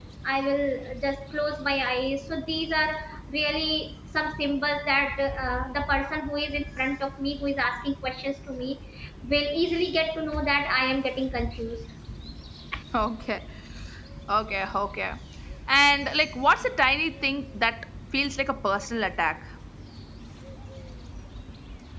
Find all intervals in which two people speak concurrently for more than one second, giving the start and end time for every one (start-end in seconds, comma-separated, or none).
none